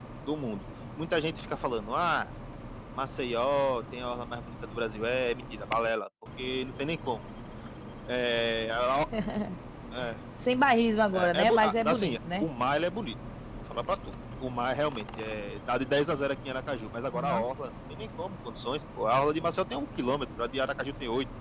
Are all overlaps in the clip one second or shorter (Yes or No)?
No